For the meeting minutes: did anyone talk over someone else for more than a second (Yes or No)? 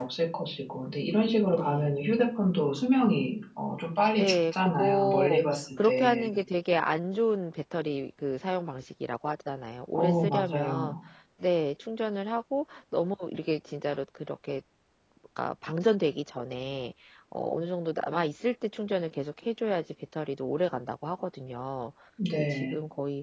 Yes